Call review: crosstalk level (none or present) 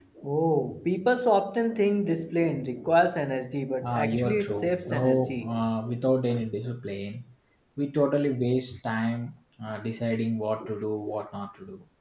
present